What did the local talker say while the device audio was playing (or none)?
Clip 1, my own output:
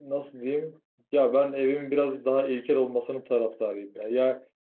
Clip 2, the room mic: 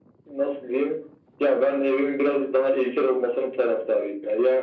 none